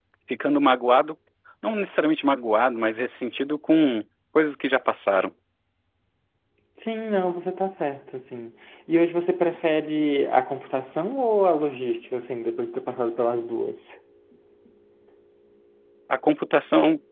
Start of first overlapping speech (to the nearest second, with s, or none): none